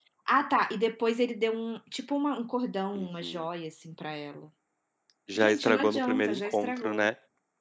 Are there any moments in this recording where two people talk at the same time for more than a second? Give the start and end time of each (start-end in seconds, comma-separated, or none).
5.3-7.1